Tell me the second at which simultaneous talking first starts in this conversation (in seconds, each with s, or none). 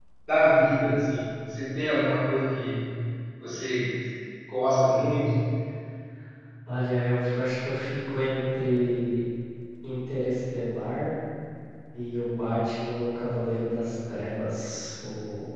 none